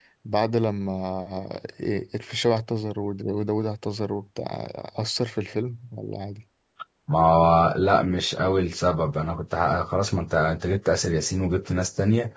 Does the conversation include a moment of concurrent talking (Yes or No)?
No